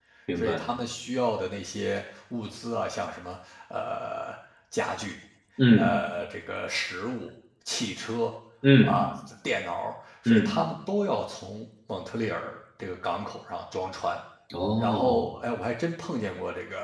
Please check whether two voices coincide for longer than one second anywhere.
No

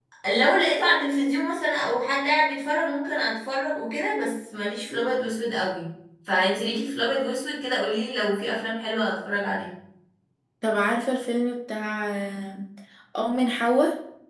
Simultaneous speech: No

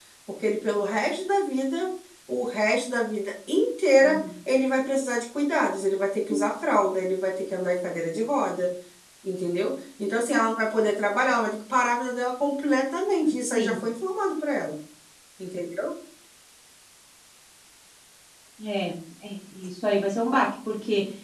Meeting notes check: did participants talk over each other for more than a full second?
No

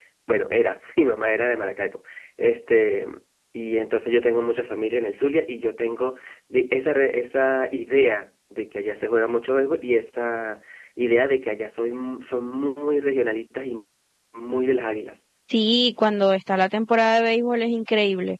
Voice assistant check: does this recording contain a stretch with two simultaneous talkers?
No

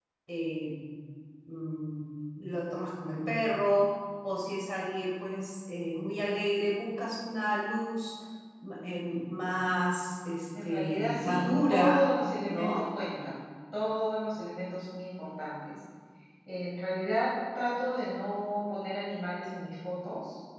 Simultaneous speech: Yes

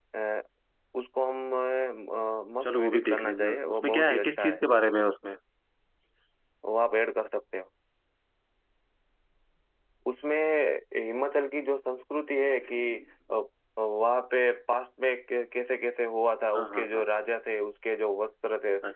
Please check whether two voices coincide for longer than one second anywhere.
Yes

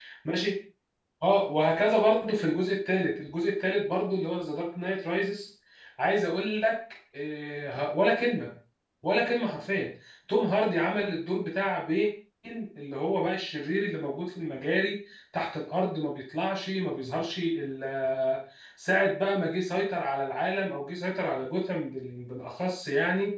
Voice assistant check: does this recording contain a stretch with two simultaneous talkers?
No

